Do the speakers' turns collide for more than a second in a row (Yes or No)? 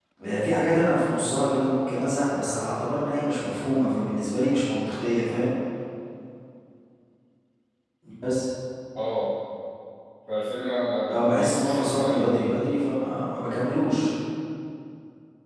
Yes